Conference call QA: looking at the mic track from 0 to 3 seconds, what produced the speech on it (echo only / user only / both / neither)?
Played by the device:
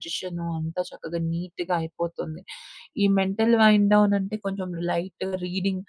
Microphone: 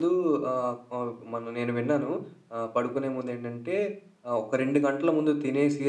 user only